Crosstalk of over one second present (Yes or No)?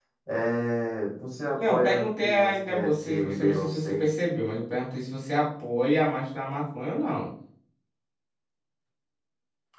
Yes